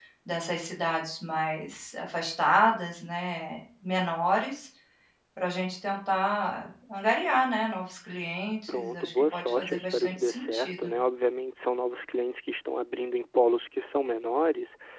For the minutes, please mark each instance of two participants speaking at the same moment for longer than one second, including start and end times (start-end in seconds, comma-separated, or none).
8.7-10.9